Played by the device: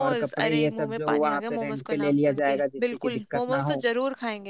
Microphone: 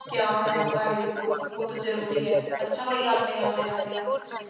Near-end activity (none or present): present